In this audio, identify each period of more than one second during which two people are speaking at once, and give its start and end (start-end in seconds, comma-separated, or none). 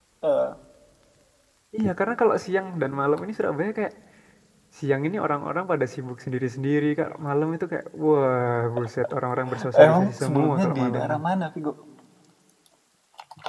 9.7-11.2